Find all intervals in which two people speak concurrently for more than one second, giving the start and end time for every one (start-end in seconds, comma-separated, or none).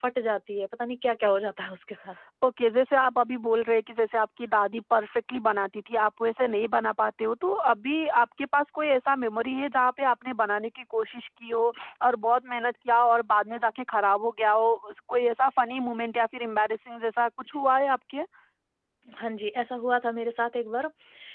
none